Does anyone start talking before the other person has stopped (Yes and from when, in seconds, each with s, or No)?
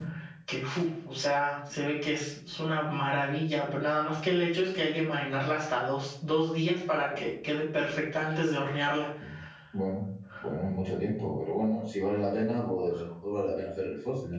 No